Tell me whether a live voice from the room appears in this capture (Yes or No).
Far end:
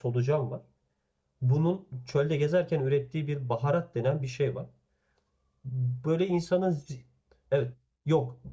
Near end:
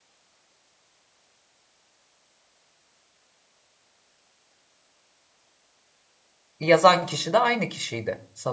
Yes